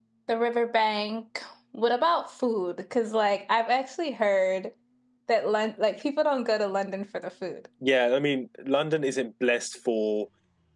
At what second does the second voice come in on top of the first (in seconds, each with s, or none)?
none